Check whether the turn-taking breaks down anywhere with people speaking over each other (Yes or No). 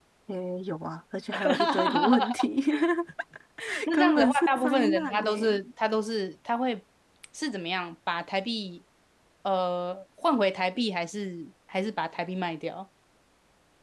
Yes